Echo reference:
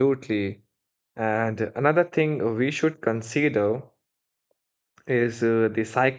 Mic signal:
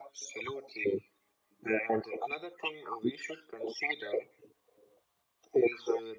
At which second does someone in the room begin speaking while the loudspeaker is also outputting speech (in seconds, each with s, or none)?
none